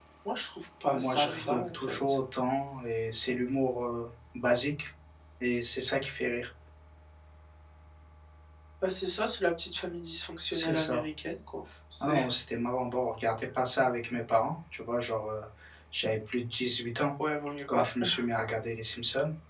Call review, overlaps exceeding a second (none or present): present